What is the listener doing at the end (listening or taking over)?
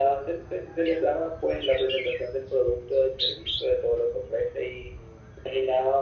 listening